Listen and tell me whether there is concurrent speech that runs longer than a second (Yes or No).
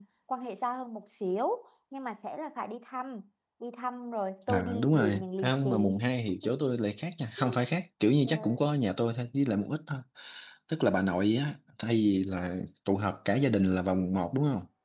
Yes